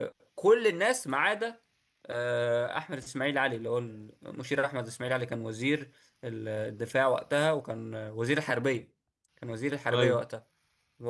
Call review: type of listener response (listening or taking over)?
listening